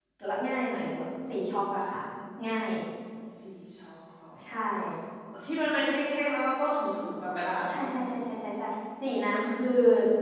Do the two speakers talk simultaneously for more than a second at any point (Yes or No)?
No